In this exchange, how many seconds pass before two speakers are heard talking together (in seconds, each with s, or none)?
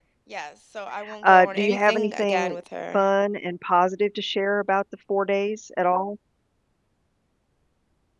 1.2 s